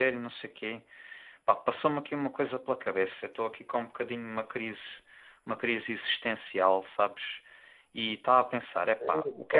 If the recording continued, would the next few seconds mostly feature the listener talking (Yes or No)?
No